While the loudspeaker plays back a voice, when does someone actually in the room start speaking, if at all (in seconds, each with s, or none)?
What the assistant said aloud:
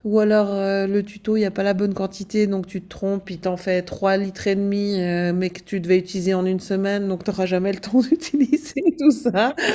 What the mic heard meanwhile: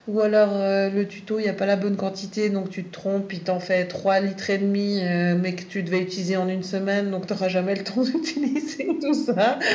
none